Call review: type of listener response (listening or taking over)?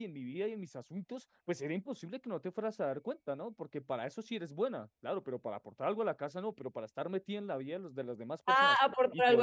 taking over